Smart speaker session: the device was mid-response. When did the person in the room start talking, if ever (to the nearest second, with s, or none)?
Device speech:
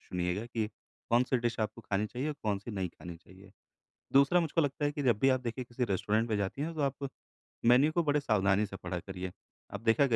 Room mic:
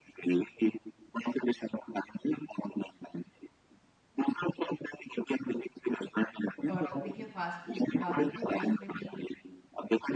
7 s